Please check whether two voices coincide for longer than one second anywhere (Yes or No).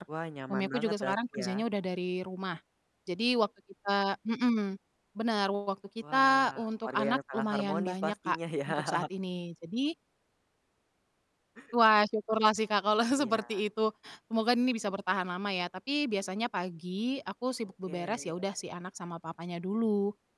Yes